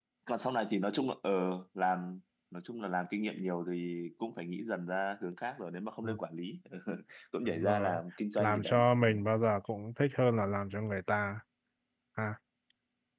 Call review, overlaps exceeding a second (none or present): none